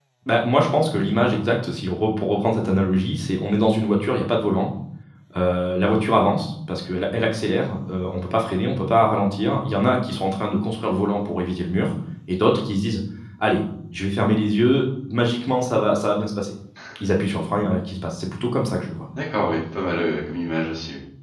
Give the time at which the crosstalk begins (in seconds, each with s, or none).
none